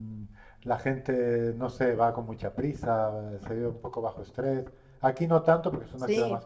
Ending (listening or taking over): listening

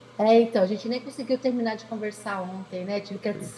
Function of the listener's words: listening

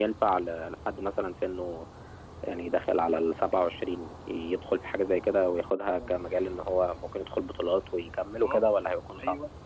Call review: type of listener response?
taking over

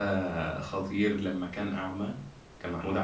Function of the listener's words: listening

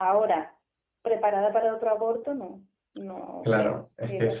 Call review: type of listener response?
taking over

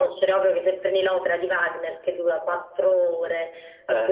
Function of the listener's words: listening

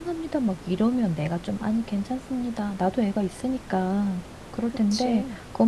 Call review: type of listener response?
listening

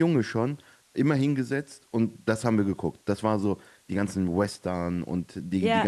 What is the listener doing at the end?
listening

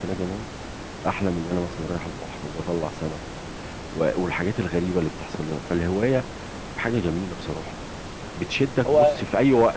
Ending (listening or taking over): listening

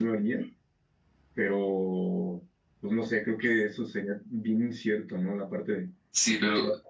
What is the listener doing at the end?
taking over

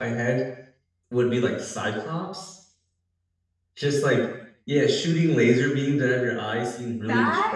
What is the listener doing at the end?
listening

